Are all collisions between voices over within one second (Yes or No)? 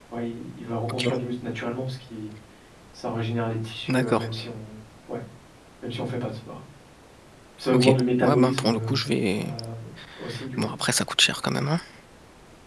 No